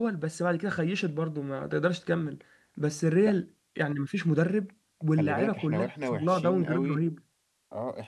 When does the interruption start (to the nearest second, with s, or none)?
5 s